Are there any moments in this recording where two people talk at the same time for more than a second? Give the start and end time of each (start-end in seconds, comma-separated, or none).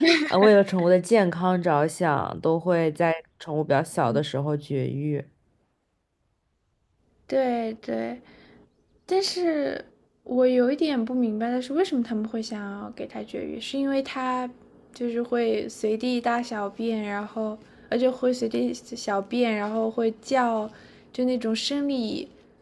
none